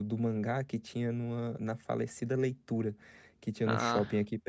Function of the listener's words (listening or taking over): listening